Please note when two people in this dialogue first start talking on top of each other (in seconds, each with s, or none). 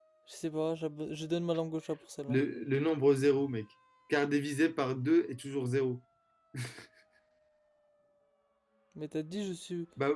none